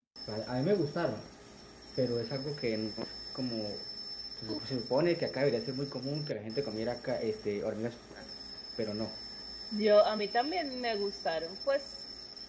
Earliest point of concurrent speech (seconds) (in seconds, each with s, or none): none